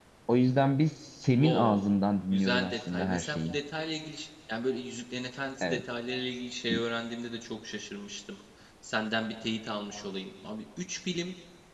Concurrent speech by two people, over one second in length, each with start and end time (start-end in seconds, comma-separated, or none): 2.3-3.6